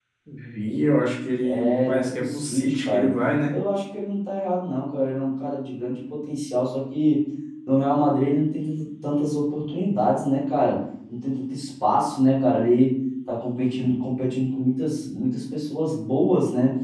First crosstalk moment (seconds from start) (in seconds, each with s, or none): 1.4 s